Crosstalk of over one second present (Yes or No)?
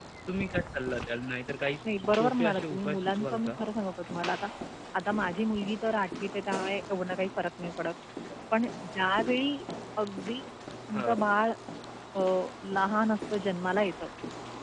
Yes